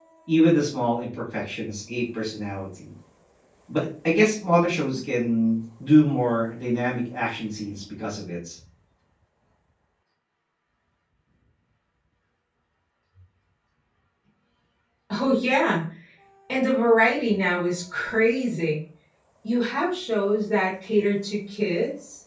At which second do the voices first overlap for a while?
none

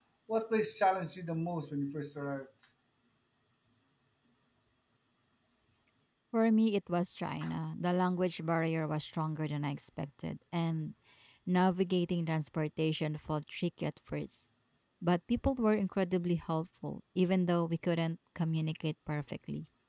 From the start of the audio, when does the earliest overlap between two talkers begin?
none

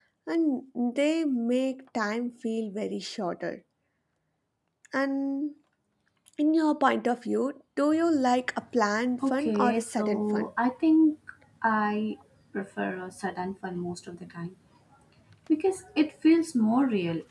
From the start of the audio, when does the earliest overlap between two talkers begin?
9 s

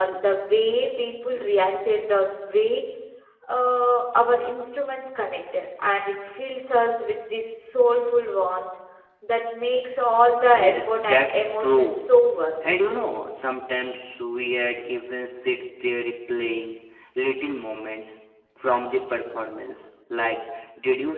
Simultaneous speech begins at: 10 s

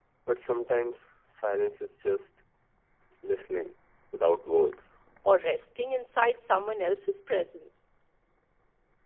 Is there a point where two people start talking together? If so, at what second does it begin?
none

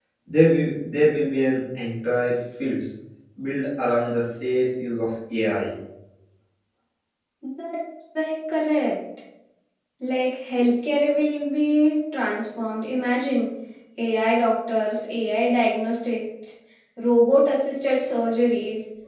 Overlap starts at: none

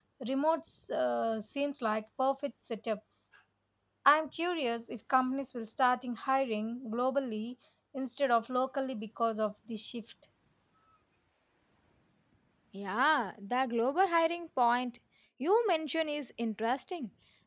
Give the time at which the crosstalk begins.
none

